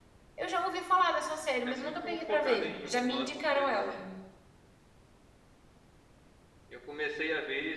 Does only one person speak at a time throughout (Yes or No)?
No